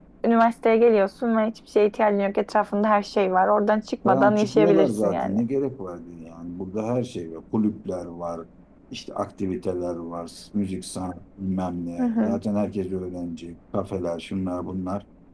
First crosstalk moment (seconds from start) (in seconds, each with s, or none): 4.0 s